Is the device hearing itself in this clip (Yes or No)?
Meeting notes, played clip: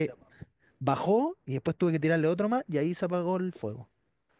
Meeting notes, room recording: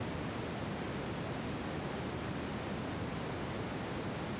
No